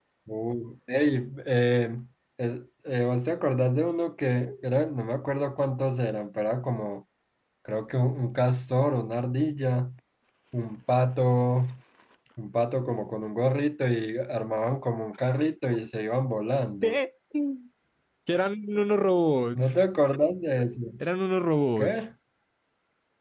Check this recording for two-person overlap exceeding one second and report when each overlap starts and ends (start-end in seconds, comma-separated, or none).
none